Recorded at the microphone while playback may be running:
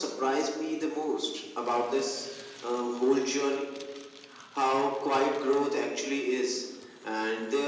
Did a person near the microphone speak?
No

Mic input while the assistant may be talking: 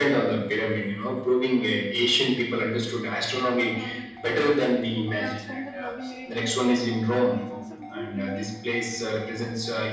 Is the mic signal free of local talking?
No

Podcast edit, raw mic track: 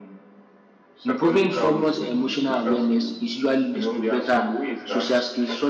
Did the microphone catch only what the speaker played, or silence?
No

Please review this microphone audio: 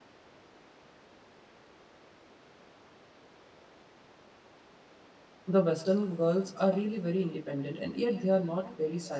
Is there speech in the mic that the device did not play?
Yes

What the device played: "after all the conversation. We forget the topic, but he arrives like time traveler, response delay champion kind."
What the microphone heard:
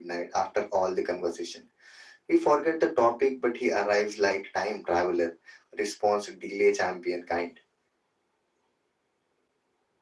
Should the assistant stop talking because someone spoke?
No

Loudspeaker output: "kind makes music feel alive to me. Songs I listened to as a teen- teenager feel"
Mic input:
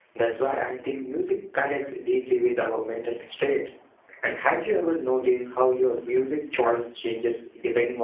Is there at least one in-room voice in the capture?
Yes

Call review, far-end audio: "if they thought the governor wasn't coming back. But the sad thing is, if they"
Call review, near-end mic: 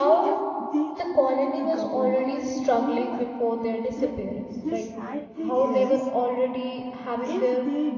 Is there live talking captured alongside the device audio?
Yes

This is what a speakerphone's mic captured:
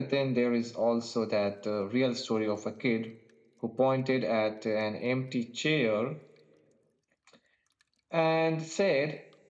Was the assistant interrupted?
No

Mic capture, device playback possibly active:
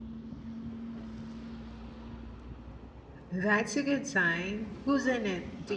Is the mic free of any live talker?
No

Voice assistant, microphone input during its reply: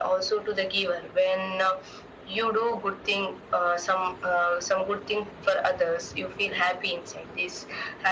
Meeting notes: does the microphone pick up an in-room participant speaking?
No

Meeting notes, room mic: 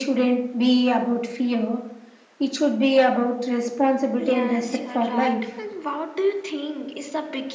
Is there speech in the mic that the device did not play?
Yes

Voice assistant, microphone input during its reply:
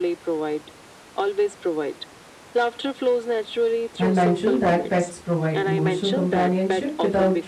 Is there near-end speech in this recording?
Yes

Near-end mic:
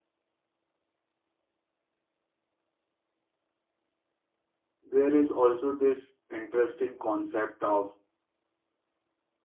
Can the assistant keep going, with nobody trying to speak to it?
No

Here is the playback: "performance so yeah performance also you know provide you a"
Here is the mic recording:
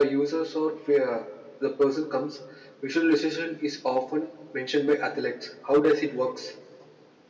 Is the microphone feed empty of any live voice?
No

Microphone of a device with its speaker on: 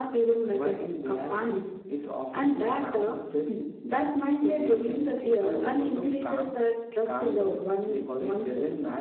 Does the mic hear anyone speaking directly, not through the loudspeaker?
No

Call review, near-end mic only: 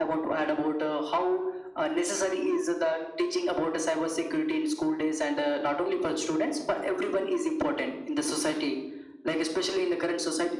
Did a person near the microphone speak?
No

